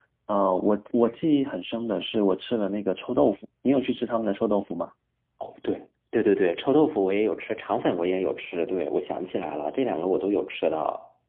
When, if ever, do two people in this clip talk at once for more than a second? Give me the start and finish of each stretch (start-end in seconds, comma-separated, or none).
none